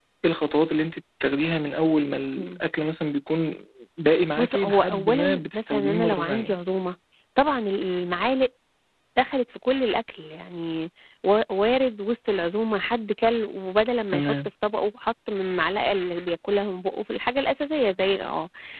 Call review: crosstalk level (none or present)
present